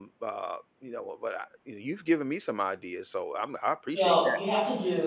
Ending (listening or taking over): taking over